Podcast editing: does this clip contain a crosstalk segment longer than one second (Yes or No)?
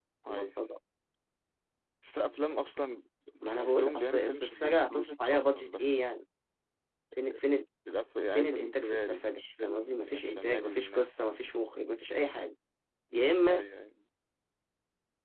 Yes